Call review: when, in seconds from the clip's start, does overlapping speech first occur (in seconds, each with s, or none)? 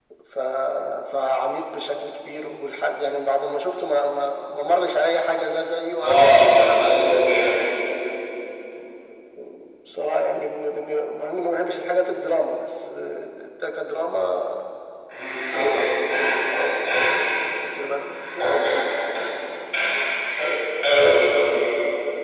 6.0 s